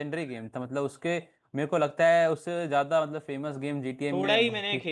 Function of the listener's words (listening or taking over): taking over